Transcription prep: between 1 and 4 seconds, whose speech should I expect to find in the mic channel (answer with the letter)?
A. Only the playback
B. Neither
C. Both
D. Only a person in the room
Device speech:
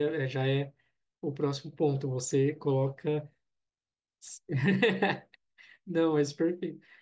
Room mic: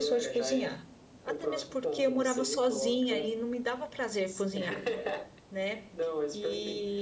C